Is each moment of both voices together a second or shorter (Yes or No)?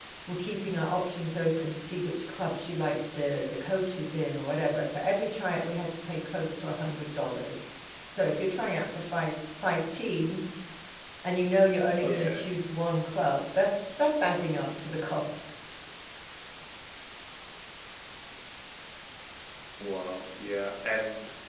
Yes